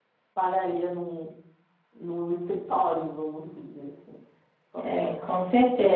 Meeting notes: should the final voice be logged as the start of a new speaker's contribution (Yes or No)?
Yes